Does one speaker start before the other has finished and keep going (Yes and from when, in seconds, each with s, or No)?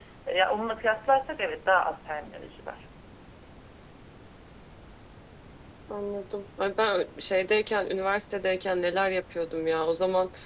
No